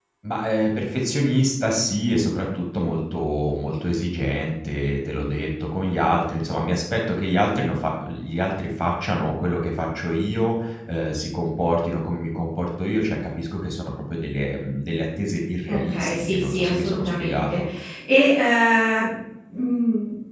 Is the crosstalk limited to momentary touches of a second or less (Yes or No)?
No